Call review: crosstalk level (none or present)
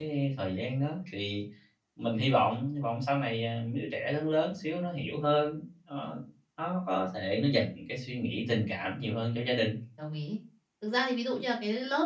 none